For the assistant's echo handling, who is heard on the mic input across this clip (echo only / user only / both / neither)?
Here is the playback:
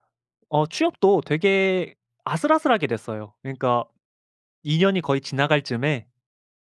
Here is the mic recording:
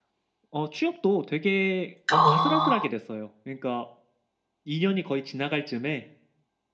both